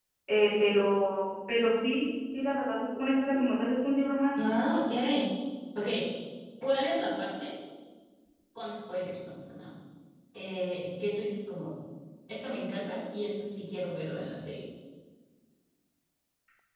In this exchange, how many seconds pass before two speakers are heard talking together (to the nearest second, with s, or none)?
none